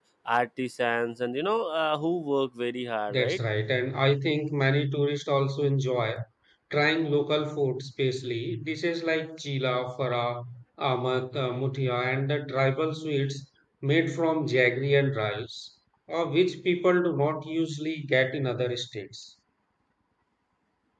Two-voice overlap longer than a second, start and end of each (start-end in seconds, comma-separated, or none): none